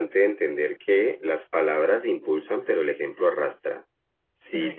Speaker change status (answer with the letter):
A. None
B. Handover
A